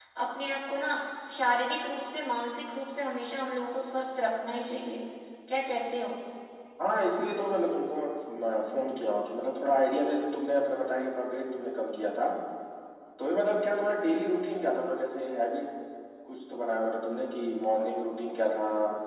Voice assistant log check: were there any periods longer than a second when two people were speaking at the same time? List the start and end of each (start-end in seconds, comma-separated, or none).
none